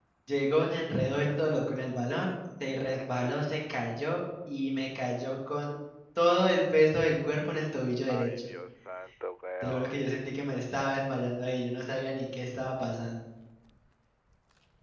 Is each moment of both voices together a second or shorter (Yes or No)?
Yes